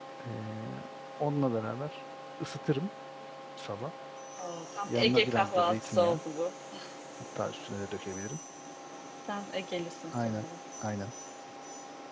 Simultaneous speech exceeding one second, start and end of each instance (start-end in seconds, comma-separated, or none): 4.9-6.2